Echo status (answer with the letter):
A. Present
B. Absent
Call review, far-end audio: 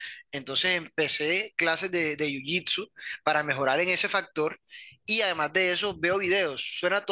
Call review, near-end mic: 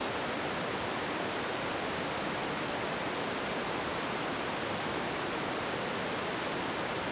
B